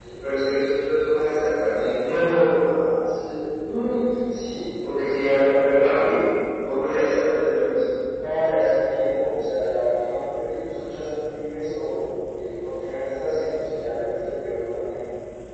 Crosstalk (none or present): none